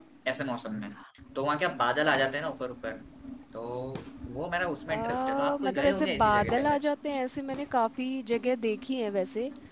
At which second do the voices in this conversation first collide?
4.9 s

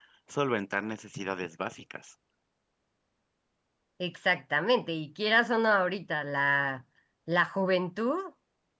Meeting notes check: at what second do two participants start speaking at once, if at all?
none

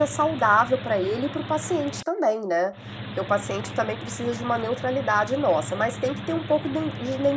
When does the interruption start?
none

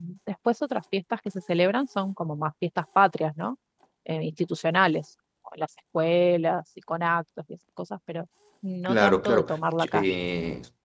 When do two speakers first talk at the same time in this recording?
8.8 s

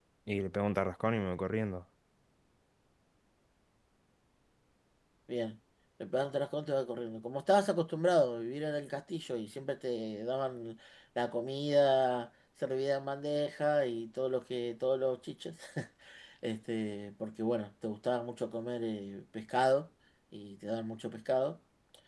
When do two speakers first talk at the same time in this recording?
none

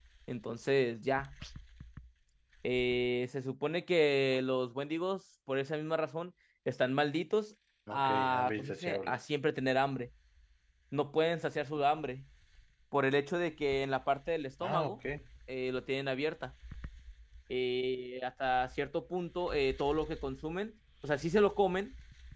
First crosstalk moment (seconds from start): 7.9 s

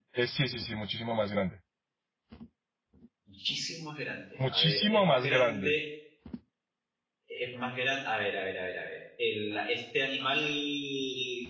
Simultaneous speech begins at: 4.4 s

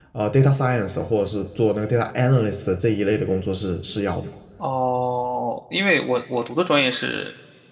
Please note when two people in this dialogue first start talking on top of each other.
none

